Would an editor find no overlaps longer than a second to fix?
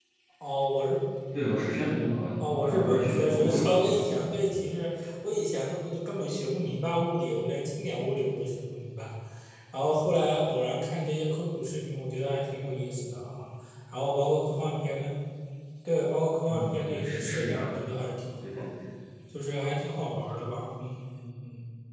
No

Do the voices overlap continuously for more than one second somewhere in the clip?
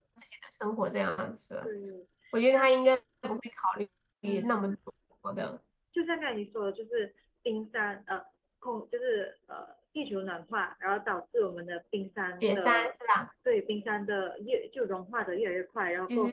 No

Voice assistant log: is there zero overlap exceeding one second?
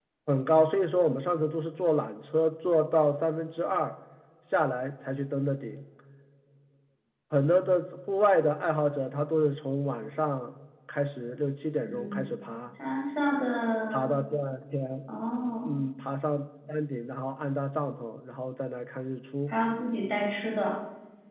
Yes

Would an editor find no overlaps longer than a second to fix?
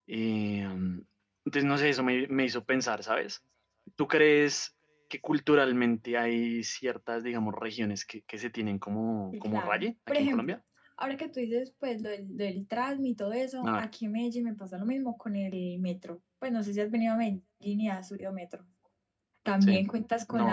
No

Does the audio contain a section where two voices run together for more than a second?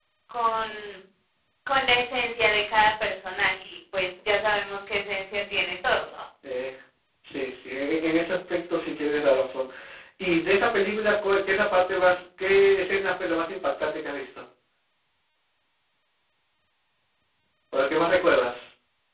No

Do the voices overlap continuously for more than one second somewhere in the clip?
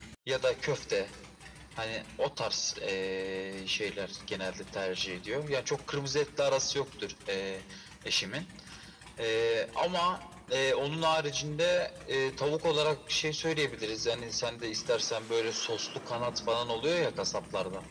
No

